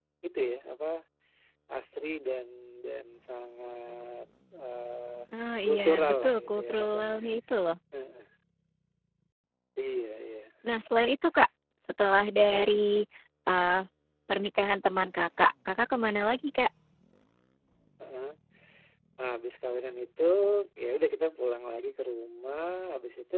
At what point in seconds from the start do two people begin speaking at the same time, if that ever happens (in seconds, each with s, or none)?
5.6 s